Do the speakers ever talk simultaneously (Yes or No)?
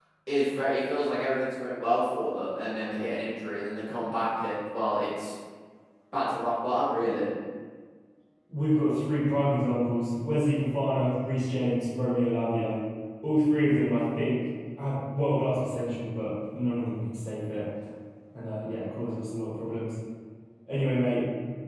No